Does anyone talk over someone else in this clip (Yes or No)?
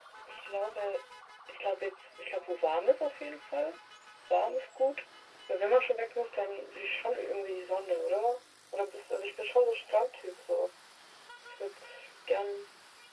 No